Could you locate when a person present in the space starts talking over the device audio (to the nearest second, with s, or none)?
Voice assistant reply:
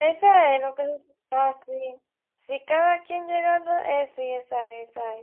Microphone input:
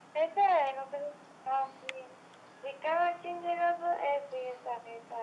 none